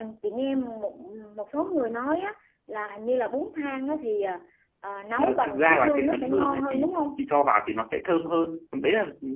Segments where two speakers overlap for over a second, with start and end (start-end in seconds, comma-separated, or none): 5.2-7.0